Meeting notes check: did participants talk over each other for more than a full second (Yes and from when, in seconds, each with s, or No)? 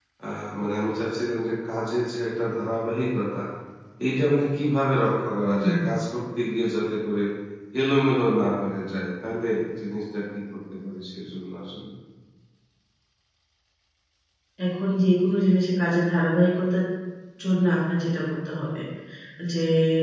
No